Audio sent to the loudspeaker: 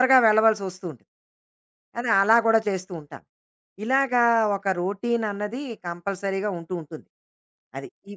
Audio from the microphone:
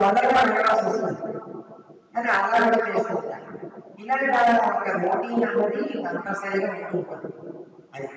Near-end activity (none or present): none